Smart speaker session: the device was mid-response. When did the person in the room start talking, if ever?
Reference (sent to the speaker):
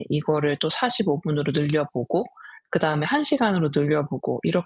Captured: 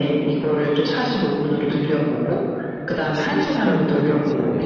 3.0 s

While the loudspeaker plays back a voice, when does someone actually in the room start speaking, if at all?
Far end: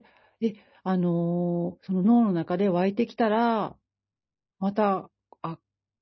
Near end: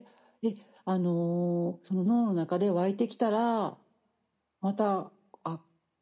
none

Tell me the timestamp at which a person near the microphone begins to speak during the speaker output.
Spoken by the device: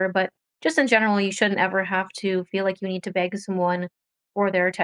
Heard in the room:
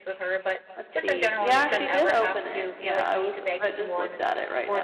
0.8 s

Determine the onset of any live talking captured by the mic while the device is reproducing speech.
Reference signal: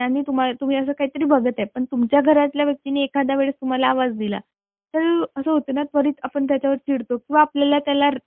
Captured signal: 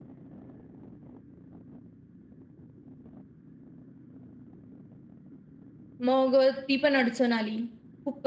6.1 s

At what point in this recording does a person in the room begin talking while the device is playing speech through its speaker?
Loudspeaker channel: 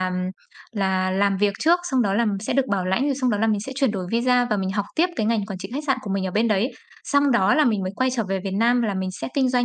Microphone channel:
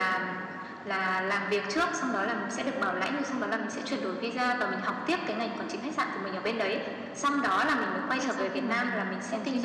8.2 s

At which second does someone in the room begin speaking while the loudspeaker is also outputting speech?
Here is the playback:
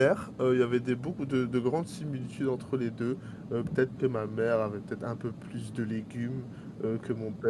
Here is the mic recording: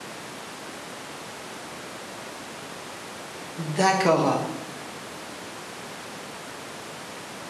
3.6 s

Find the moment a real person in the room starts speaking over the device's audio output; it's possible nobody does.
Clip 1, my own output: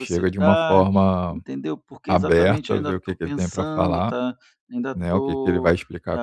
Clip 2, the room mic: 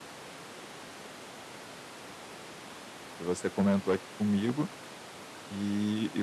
3.1 s

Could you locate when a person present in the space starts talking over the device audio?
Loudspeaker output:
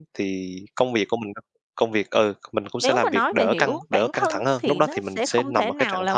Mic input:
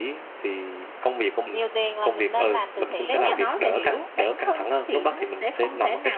1.5 s

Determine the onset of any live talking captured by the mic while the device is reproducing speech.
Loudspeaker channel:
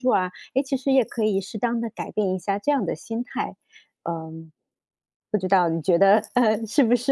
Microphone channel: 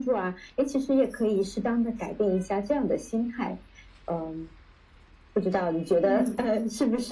6.0 s

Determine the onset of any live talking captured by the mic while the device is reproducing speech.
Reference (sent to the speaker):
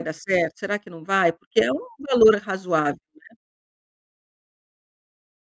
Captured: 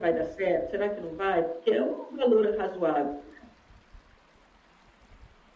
none

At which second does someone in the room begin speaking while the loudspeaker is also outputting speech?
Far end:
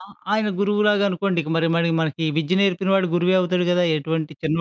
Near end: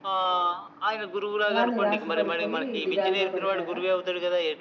1.5 s

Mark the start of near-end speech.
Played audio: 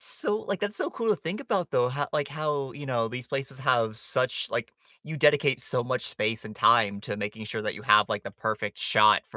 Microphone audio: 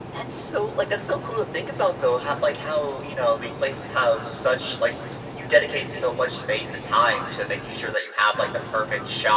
none

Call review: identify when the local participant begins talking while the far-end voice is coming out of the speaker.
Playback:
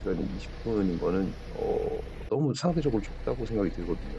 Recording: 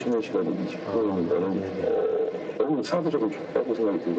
0.8 s

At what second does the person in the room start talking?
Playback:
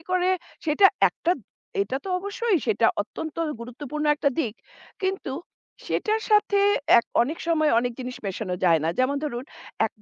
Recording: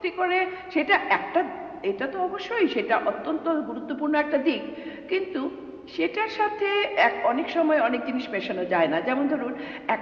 none

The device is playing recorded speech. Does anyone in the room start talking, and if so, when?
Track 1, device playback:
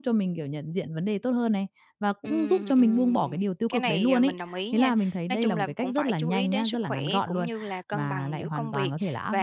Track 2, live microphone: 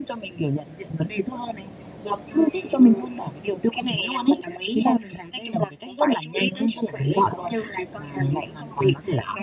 none

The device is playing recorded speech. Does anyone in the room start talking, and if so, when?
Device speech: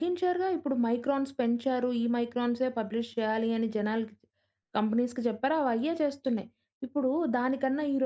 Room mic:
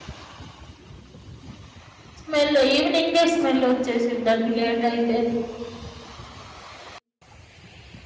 2.2 s

